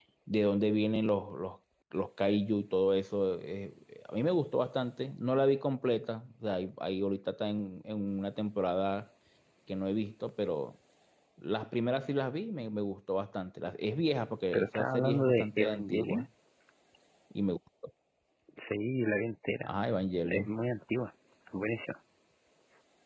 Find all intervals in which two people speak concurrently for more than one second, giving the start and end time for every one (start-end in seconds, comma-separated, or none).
14.5-16.2